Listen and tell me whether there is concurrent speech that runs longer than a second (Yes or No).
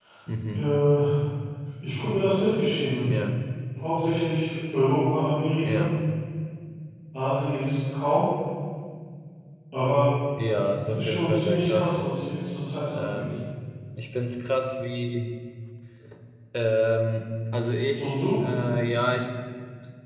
Yes